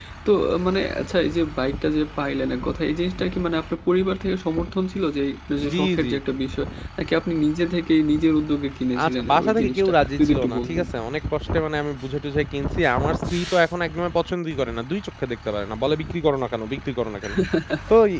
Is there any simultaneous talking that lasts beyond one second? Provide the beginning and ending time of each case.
9.0-10.8

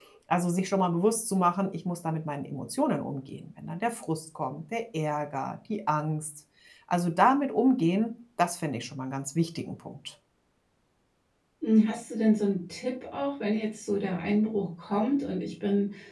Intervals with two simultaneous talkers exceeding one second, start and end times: none

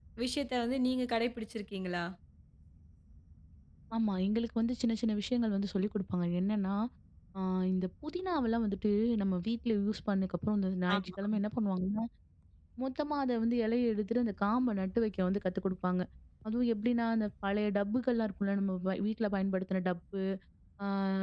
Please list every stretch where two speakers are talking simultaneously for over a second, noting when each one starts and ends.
none

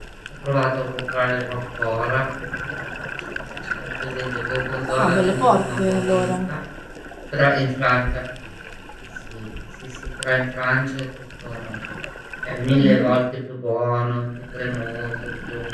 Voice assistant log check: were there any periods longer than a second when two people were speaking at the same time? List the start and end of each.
5.0-6.5

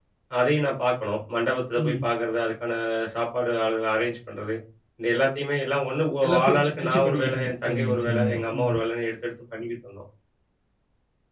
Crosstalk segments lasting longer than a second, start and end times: 6.2-8.7

